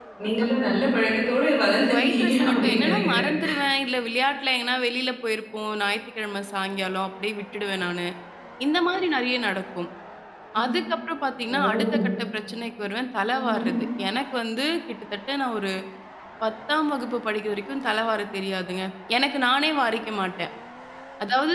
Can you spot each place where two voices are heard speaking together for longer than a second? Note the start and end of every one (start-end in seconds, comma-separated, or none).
1.9-3.2